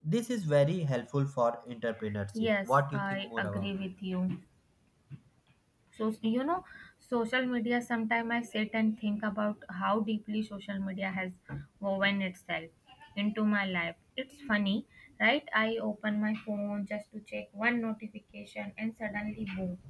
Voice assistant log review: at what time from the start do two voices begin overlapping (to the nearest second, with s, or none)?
2 s